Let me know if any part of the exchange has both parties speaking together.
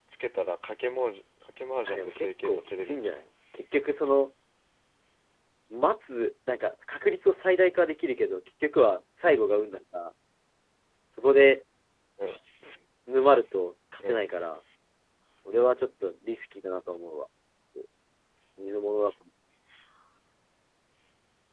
Yes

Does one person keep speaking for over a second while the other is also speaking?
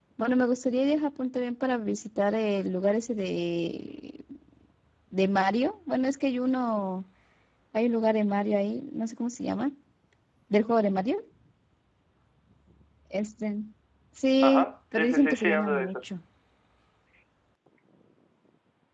Yes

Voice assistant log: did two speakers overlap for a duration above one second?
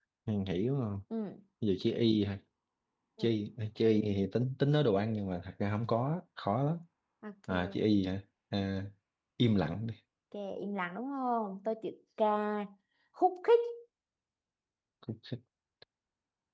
No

